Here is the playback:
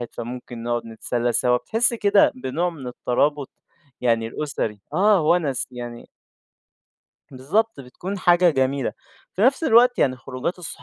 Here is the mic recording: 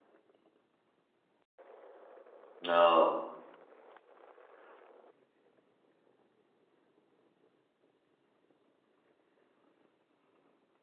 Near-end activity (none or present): present